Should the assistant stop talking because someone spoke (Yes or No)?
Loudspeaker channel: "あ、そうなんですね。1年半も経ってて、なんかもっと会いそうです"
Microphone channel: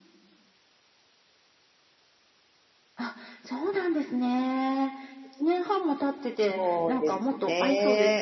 Yes